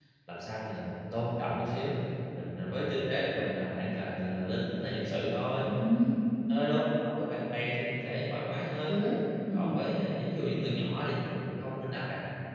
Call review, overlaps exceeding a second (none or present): none